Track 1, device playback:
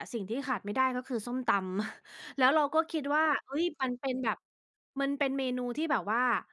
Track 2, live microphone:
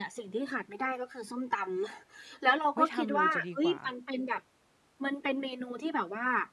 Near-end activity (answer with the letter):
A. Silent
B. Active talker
B